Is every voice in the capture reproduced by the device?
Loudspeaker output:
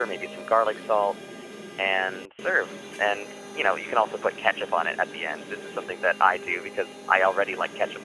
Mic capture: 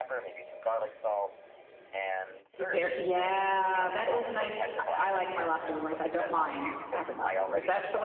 No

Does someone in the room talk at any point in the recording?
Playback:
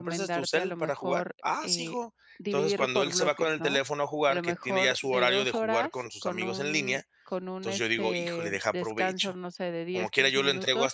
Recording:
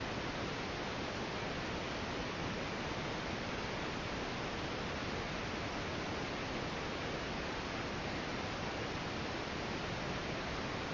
No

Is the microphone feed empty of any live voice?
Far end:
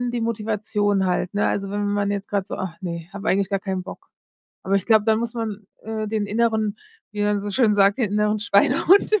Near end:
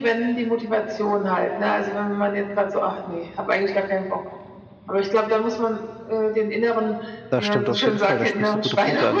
No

